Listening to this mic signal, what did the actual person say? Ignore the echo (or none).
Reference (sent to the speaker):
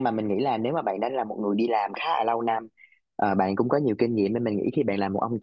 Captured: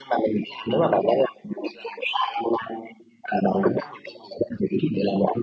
none